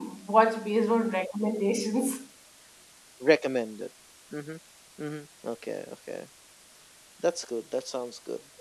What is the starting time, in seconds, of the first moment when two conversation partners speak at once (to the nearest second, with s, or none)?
none